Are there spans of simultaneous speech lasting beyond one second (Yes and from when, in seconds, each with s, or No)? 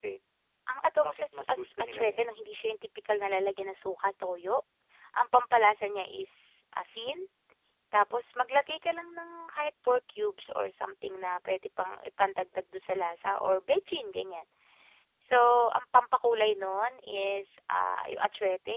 Yes, from 0.8 s